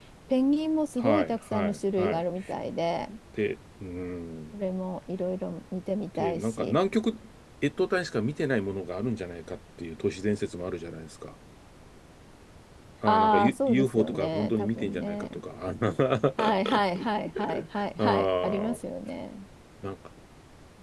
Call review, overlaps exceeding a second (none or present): present